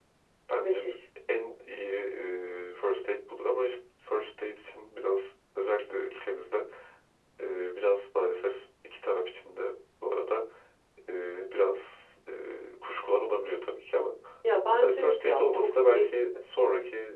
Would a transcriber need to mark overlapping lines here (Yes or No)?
Yes